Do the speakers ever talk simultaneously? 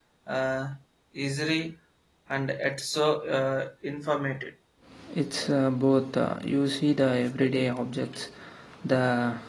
No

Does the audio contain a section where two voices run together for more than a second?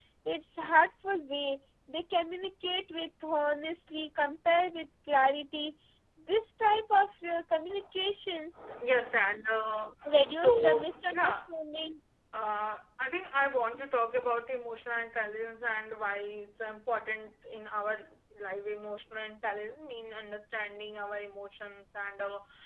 Yes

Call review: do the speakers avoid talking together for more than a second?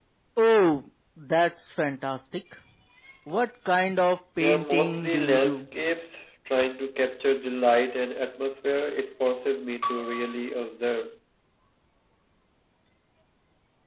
No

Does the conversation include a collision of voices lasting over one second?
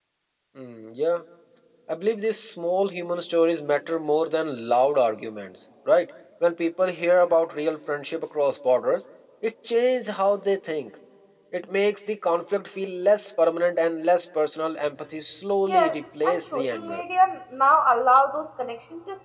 Yes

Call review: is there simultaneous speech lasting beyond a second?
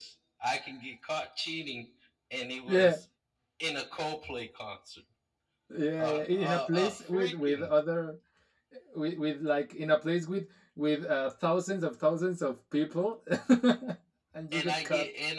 Yes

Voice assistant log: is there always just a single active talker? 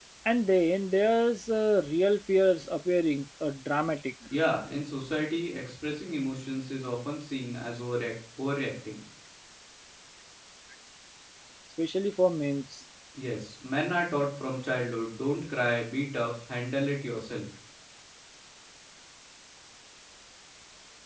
Yes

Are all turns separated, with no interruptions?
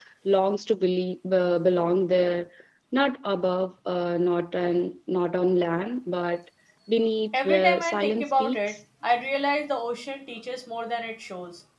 No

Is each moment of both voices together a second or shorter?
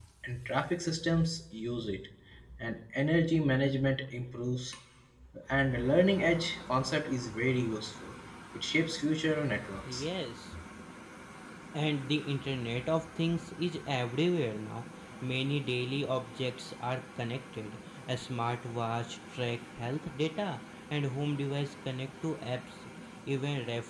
Yes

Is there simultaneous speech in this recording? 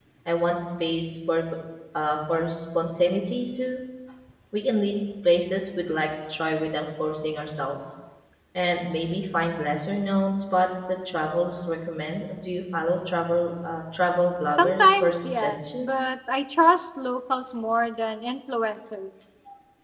Yes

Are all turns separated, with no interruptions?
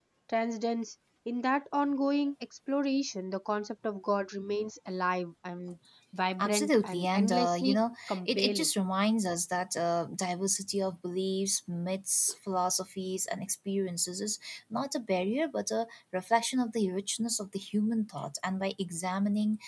No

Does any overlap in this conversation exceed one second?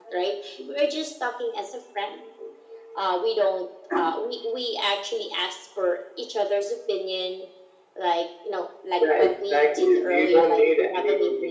Yes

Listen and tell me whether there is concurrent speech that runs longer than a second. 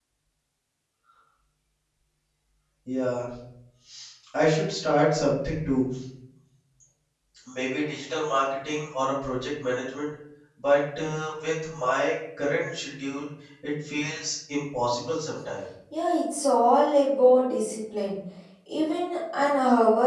No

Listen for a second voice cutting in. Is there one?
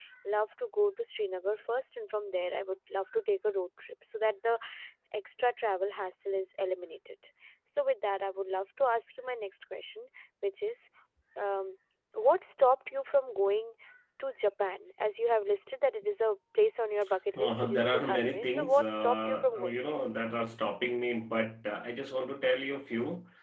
Yes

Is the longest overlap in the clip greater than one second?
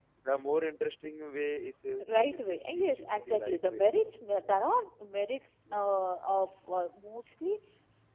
Yes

